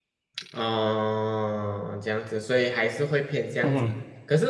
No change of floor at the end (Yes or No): Yes